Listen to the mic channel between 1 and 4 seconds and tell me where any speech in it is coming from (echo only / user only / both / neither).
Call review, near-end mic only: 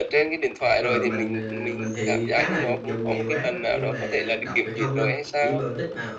both